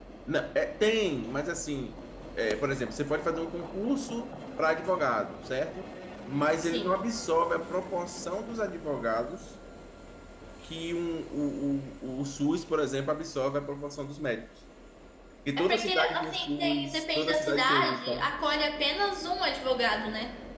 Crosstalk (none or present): present